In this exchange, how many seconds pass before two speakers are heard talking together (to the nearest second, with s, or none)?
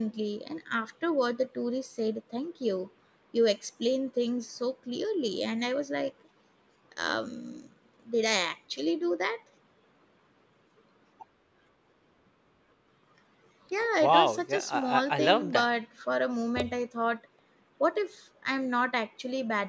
14 s